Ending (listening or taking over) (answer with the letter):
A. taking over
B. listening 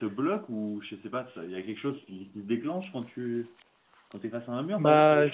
A